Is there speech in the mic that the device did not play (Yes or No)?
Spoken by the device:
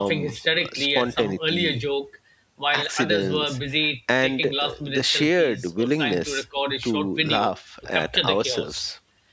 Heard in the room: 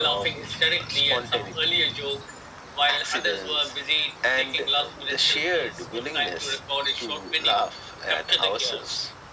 No